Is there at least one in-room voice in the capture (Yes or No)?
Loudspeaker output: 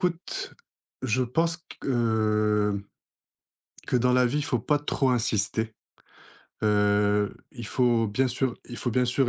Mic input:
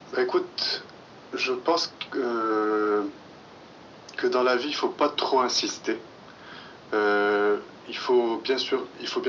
No